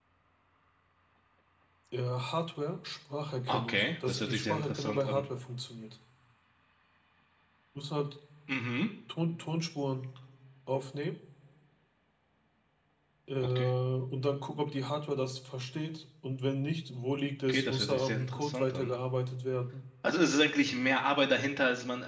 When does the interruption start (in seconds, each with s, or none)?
3.5 s